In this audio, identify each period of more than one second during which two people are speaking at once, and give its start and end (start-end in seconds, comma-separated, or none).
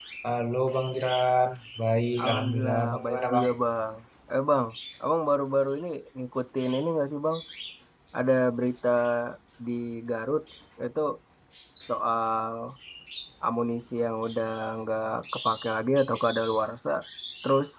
2.2-3.5